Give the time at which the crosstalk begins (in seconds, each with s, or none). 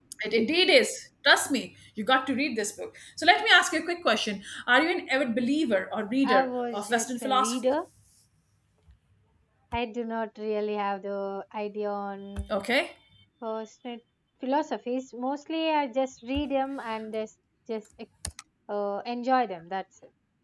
6.2 s